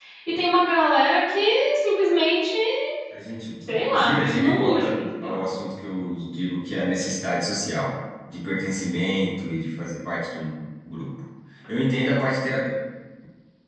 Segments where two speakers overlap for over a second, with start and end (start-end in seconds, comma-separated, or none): 3.9-5.3